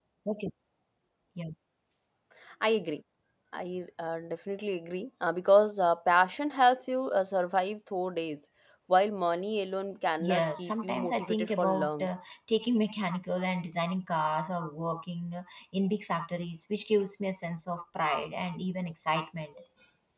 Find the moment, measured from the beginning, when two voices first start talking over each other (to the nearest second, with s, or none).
10 s